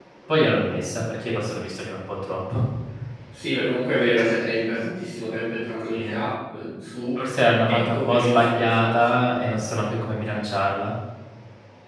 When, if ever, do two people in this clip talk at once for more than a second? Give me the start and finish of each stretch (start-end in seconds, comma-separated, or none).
7.7-9.2